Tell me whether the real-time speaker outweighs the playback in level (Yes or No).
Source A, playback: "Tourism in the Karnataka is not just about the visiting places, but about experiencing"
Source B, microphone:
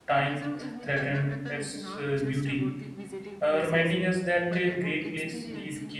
Yes